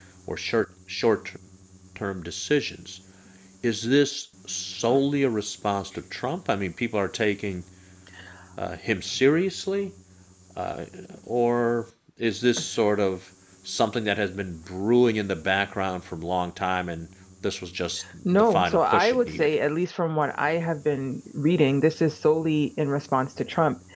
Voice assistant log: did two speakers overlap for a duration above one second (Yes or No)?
Yes